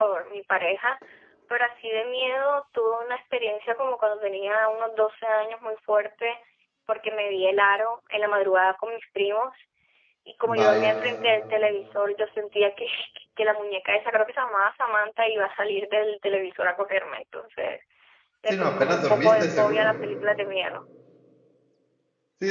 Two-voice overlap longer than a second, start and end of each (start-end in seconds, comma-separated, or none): 18.5-20.0